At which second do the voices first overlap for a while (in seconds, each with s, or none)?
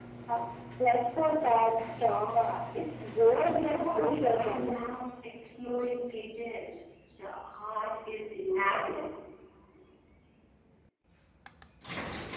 3.3 s